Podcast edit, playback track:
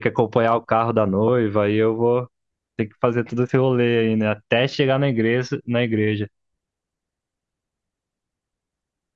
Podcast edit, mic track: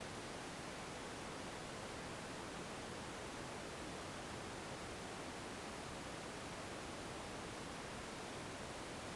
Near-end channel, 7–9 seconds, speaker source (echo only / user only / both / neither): neither